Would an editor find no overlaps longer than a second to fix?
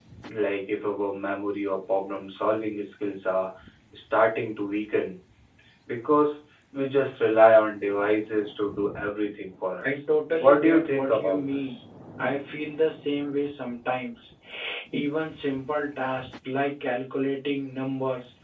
No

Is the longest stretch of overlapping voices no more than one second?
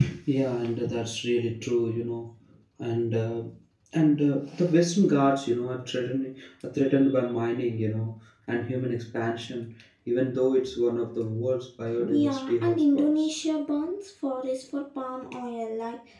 No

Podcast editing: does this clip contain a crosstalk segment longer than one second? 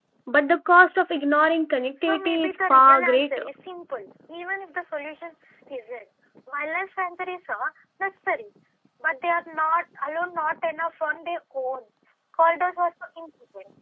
Yes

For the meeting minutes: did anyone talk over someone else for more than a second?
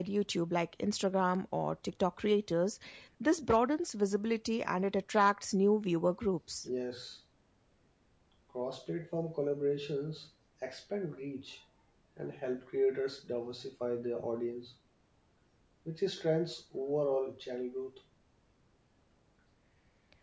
No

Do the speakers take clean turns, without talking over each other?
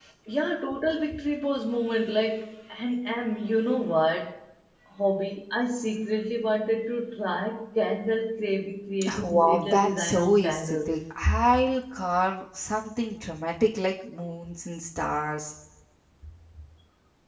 No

